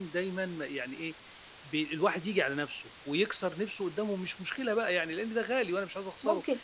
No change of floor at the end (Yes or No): No